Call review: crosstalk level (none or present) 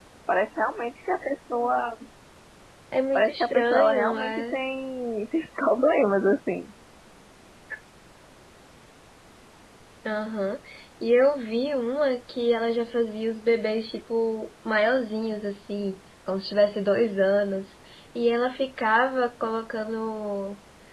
present